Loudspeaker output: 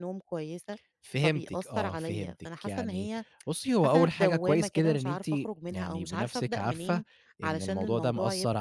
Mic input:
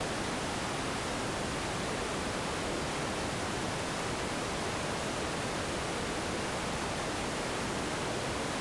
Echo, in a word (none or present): none